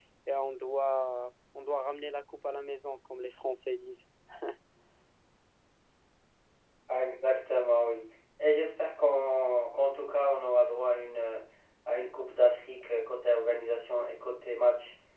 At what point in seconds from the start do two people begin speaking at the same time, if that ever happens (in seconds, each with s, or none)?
none